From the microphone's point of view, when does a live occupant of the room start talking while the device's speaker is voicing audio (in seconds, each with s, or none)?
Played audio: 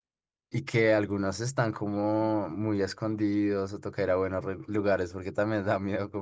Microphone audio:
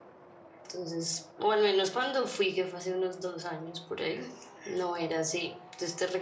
0.6 s